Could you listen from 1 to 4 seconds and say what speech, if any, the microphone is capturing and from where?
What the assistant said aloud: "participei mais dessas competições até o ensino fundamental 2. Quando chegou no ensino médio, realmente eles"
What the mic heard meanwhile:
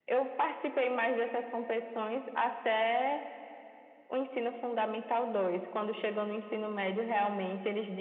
echo only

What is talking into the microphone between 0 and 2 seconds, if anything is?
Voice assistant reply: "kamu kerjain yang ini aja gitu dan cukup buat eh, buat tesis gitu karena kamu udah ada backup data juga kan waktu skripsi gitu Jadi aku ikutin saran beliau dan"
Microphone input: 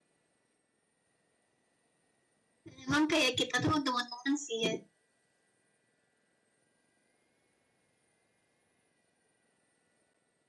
neither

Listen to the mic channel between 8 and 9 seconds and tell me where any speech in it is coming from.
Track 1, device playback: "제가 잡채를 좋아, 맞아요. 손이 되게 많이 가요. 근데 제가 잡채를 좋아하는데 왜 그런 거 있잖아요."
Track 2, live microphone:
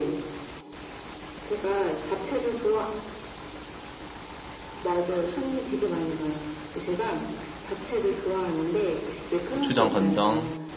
echo only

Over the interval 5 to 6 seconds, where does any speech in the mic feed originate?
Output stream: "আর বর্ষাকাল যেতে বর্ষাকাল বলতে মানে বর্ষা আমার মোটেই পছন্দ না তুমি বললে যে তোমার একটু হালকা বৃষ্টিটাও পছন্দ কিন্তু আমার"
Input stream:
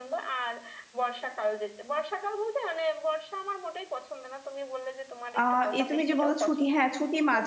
both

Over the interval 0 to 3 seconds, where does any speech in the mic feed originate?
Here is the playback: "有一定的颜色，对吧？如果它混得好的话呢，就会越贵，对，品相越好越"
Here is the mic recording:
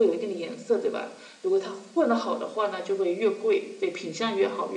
echo only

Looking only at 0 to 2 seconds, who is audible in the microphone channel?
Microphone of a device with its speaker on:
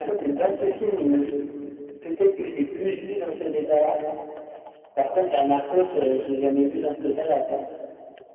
echo only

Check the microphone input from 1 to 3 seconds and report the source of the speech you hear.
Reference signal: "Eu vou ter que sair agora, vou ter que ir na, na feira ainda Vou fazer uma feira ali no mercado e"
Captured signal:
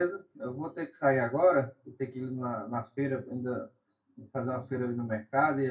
echo only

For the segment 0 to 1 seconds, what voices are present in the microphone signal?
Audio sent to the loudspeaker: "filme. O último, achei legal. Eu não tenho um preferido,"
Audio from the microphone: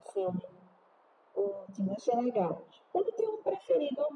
echo only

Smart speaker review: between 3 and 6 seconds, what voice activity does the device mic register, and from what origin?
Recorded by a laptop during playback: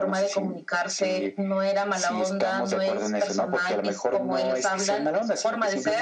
echo only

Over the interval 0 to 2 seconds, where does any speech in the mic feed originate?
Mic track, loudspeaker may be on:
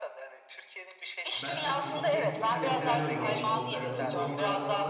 both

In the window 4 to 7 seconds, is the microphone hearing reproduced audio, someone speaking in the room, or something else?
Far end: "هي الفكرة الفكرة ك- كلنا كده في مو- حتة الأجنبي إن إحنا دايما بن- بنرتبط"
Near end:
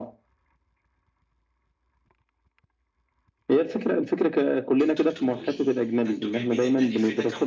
both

